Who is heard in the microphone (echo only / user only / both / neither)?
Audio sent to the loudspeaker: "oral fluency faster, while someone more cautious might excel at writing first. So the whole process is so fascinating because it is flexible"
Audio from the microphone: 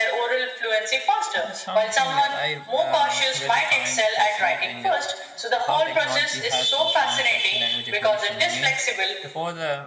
both